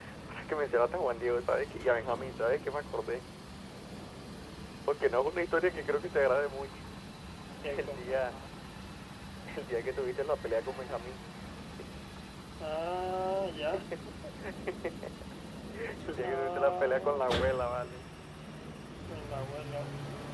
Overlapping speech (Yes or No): Yes